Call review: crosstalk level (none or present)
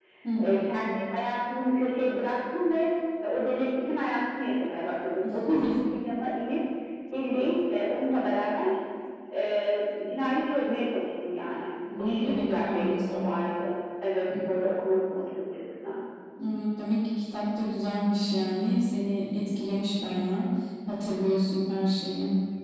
present